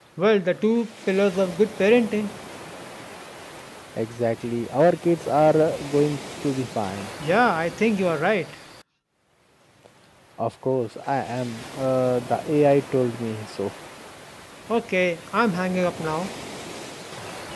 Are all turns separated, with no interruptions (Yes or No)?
Yes